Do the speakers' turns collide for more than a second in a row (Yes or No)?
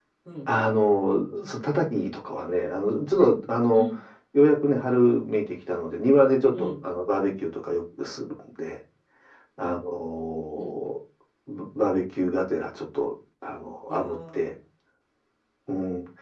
No